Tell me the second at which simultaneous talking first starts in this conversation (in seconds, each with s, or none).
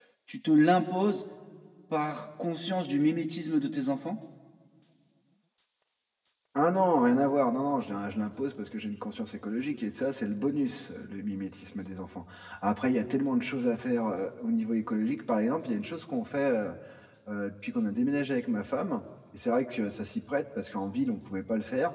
none